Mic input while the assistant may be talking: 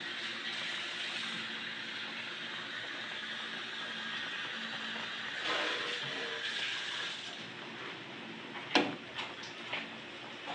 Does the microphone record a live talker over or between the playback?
No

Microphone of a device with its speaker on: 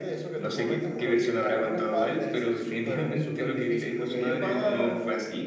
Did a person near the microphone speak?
No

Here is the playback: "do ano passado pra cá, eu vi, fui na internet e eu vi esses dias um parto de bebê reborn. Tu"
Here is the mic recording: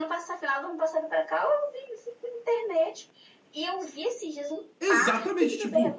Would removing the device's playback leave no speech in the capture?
No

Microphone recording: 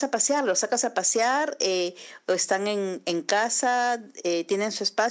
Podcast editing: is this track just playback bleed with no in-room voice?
Yes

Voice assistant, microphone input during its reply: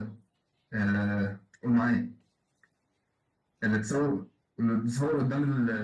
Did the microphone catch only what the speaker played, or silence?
Yes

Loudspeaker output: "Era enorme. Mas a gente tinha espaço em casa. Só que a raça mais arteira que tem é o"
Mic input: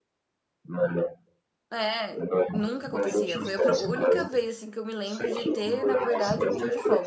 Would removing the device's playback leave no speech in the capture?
No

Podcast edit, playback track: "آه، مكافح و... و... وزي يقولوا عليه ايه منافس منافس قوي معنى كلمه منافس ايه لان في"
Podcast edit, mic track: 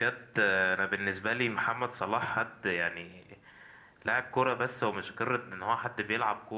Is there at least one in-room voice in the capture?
Yes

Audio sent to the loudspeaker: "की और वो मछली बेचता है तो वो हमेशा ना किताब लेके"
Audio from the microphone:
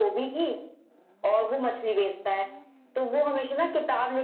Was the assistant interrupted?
No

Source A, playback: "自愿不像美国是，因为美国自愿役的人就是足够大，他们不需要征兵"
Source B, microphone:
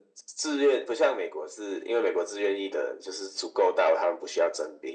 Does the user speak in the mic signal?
No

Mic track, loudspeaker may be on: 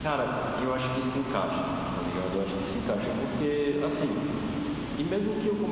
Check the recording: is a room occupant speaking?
No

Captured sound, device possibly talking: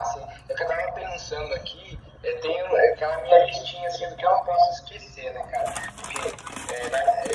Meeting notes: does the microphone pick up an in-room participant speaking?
No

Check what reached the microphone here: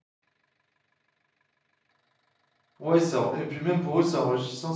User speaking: Yes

